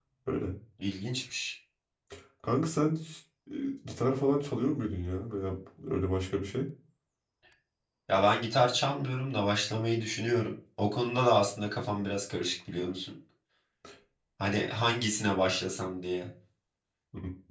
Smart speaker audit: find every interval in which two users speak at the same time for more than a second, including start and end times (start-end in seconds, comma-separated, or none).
none